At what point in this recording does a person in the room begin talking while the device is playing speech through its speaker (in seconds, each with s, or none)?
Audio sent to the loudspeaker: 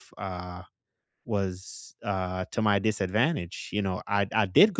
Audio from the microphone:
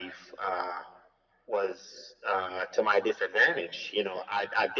none